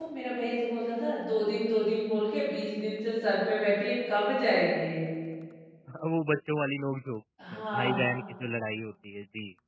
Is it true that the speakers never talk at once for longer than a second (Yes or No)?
Yes